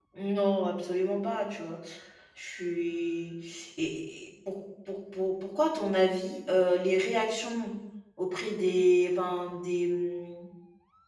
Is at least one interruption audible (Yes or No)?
No